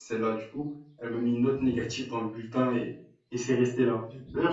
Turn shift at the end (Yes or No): No